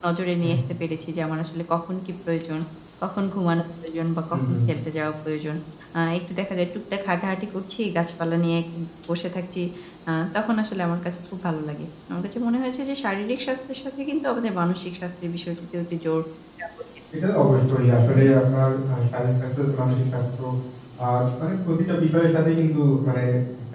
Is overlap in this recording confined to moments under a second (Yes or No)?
Yes